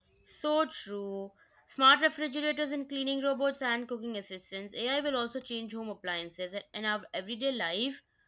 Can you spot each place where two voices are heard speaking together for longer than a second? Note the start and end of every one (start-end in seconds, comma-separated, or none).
none